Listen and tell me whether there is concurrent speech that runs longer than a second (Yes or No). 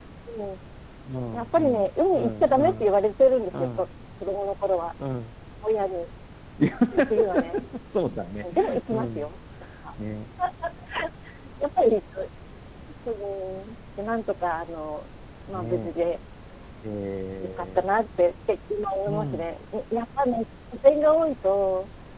Yes